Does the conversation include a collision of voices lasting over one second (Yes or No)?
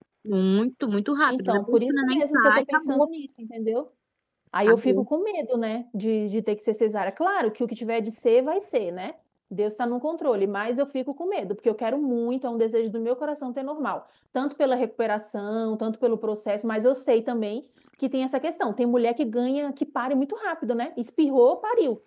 Yes